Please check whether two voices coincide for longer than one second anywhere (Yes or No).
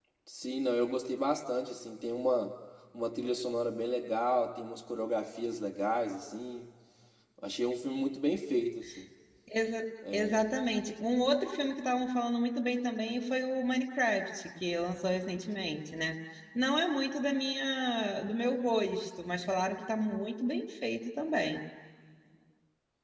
No